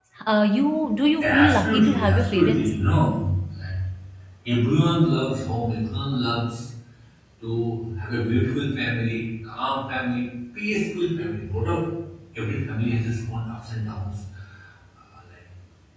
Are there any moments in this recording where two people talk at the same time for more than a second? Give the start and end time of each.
1.2-2.7

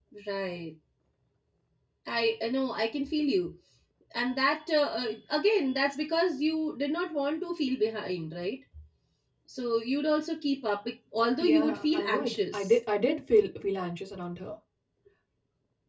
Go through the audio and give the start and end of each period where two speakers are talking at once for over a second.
11.4-12.7

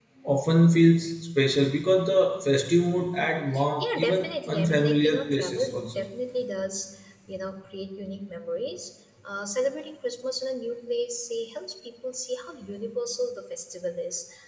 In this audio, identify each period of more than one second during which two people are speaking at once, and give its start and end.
3.8-6.0

